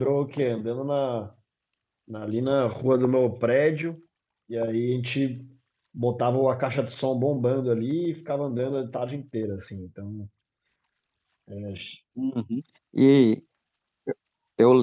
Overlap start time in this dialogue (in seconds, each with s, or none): none